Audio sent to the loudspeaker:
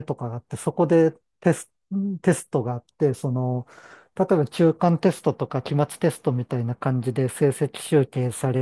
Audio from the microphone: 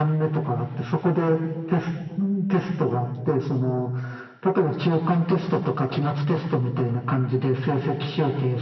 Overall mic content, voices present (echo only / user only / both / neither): echo only